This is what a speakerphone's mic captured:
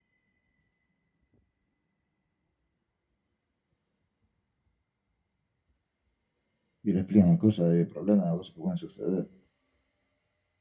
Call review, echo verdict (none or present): none